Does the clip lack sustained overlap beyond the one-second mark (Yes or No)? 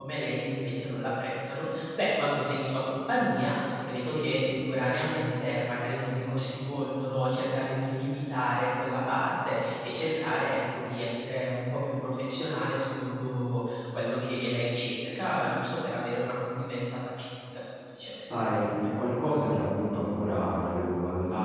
Yes